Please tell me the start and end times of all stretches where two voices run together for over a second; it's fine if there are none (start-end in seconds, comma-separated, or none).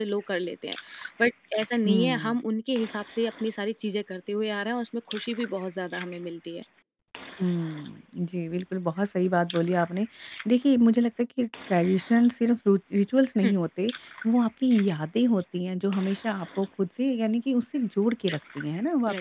none